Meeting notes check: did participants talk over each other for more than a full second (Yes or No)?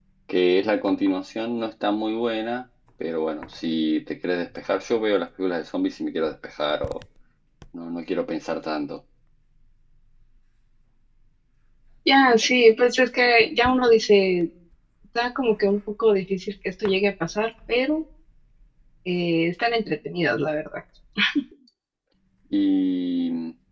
No